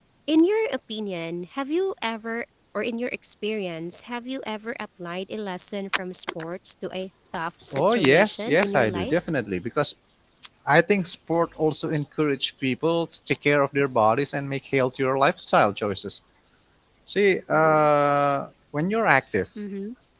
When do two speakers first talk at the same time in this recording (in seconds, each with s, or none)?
7.7 s